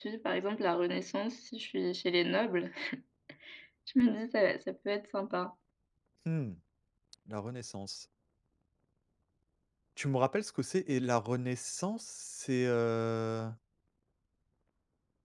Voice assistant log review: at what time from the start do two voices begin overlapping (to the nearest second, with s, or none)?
none